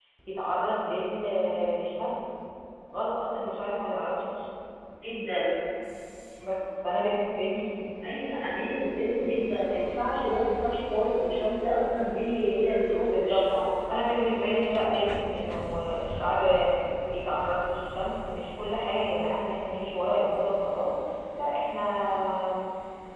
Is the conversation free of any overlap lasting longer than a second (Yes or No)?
Yes